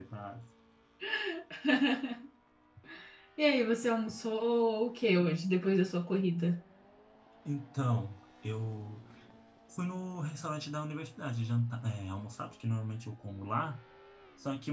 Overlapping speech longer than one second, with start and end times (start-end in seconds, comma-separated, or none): none